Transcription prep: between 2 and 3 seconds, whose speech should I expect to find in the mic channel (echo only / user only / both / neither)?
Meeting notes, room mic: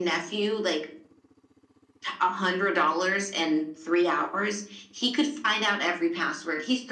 echo only